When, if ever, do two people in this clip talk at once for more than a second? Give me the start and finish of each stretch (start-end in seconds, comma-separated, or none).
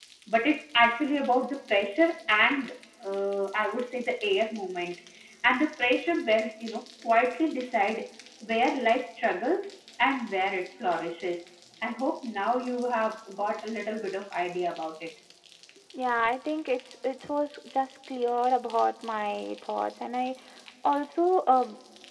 none